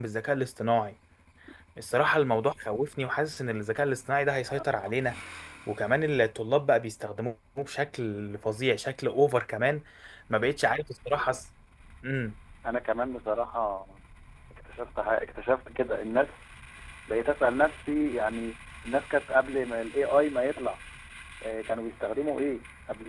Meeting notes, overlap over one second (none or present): none